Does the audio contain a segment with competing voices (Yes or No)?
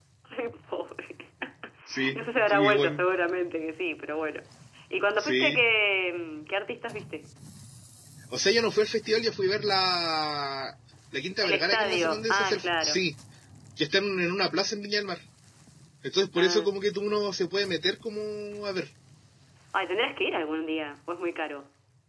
Yes